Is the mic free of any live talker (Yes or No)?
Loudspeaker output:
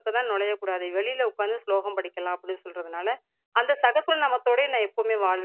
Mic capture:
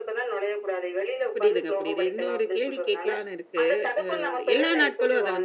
No